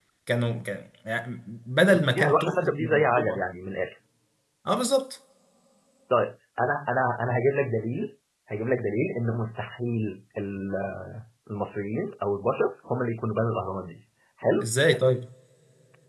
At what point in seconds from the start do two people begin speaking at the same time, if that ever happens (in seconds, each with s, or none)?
1.9 s